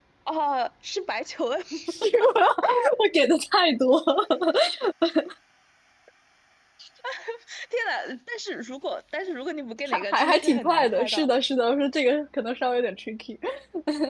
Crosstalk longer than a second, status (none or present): present